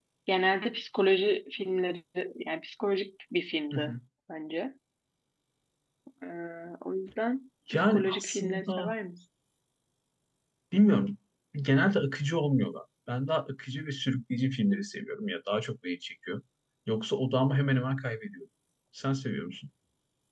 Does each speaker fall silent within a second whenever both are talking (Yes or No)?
No